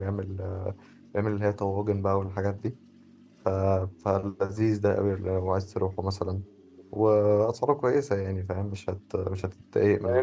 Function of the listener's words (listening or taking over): taking over